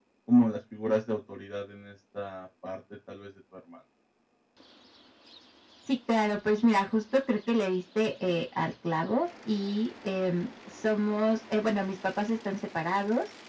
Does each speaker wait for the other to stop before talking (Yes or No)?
Yes